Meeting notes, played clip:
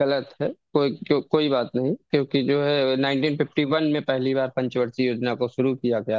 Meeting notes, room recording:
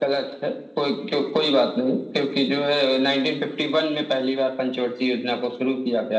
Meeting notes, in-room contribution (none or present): none